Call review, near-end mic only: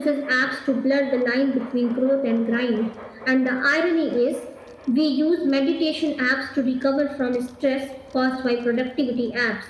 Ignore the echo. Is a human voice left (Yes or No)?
No